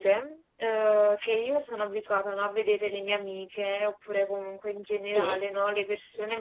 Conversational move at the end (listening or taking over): listening